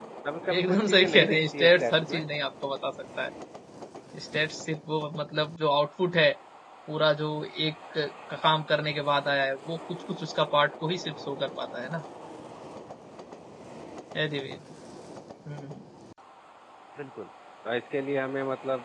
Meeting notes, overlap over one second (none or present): present